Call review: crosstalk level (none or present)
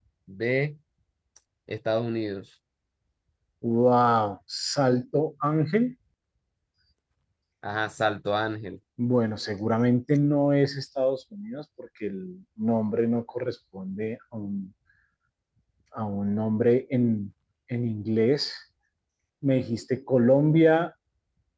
none